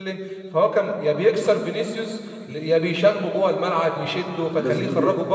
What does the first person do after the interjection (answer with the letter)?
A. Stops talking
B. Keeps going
A